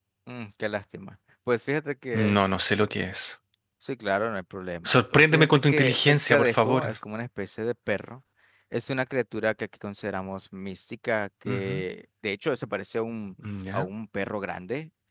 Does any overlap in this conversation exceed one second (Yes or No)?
Yes